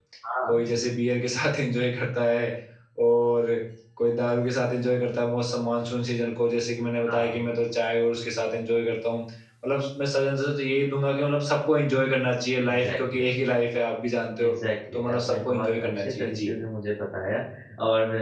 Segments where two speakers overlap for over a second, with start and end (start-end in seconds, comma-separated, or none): 14.9-16.5